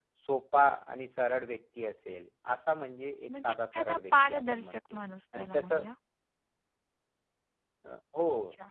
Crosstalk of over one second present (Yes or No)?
Yes